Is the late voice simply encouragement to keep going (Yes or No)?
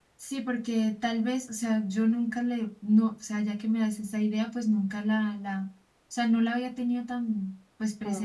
Yes